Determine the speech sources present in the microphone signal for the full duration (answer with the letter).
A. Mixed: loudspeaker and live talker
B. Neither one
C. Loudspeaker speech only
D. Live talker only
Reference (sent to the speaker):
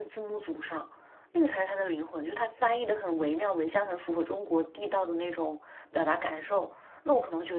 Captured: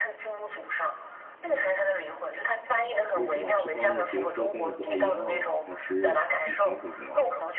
A